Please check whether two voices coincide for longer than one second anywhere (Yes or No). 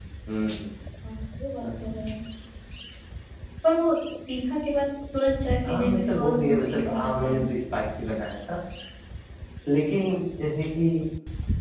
Yes